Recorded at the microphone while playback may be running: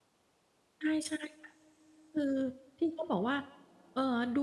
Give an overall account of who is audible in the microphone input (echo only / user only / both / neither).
user only